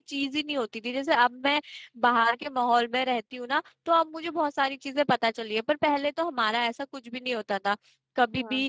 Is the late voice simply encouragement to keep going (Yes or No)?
Yes